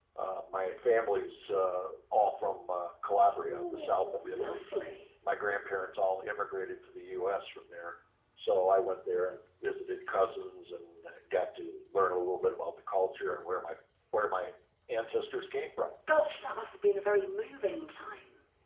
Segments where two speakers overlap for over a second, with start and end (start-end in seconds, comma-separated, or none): 3.3-4.6